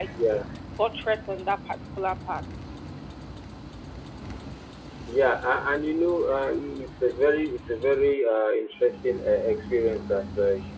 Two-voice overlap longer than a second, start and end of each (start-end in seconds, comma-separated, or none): none